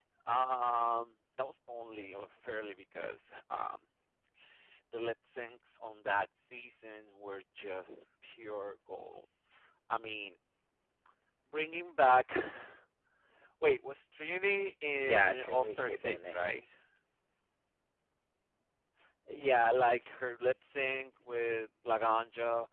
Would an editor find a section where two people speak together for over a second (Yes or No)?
Yes